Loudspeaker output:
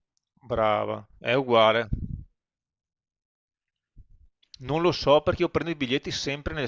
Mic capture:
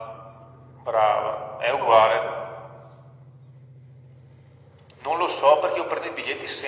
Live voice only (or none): pop?